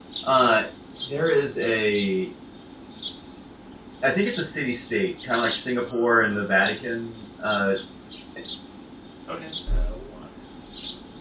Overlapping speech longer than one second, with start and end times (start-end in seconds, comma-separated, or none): 5.8-7.1